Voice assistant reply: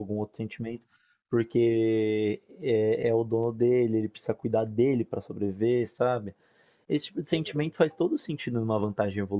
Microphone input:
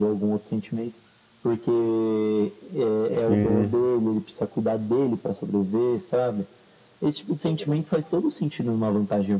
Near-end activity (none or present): present